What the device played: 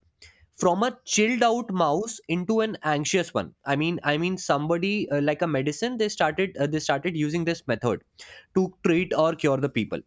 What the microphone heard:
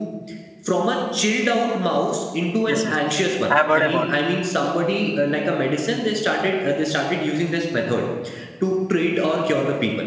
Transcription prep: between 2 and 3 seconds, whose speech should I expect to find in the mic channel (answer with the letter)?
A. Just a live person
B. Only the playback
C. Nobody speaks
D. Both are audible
D